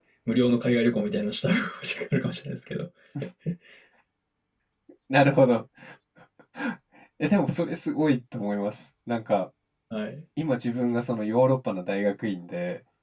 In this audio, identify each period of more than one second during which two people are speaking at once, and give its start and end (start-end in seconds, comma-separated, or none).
none